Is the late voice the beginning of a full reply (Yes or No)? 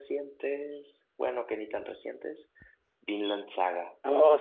Yes